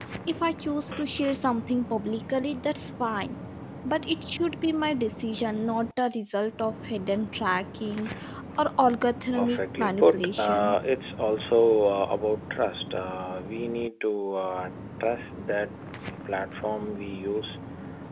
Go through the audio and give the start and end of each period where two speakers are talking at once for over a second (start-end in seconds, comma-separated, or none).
9.3-10.8